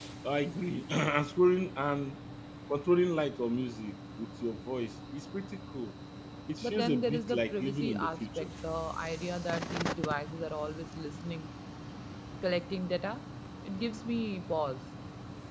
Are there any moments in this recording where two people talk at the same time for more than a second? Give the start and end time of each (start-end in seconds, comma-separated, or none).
6.6-8.5